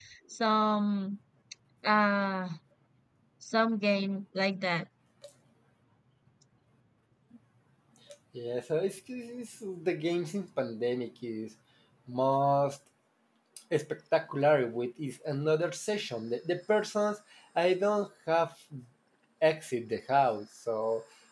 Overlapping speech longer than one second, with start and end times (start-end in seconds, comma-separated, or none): none